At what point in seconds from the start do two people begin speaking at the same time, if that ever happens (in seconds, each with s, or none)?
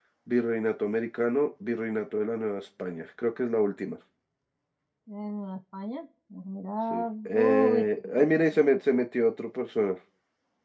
6.9 s